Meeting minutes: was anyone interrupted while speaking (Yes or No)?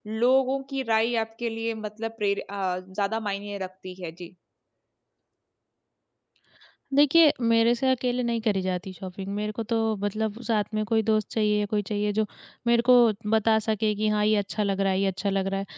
No